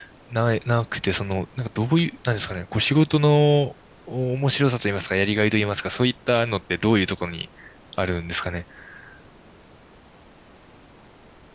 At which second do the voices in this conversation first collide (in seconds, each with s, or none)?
none